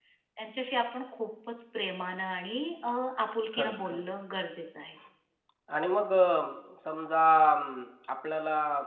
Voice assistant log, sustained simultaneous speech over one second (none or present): none